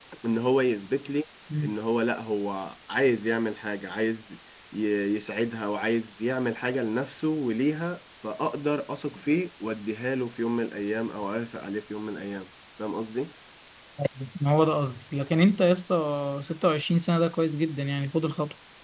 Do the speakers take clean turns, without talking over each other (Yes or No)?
Yes